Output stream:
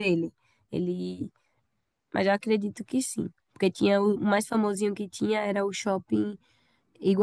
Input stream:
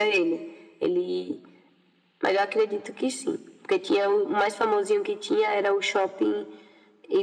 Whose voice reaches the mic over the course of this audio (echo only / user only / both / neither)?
echo only